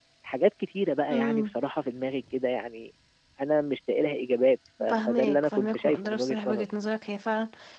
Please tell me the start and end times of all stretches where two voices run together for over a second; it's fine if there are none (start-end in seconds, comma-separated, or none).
4.9-6.7